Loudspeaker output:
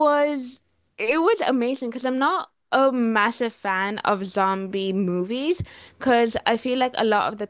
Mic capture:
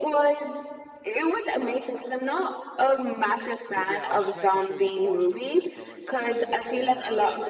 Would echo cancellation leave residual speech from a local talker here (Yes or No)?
Yes